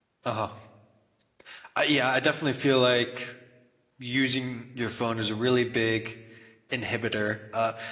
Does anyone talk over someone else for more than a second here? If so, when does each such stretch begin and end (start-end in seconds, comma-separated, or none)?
none